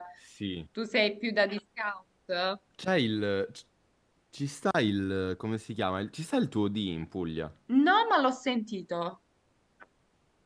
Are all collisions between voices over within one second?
Yes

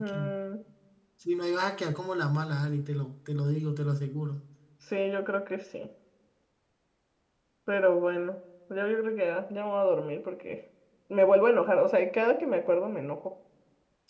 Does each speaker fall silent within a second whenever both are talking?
Yes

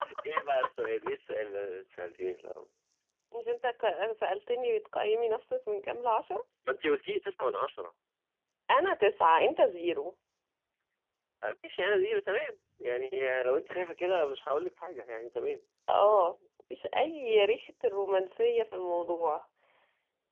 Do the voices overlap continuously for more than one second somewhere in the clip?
No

